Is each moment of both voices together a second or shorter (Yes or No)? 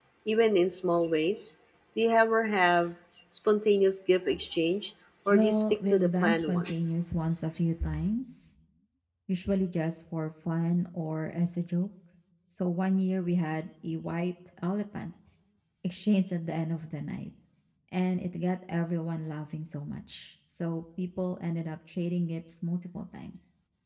No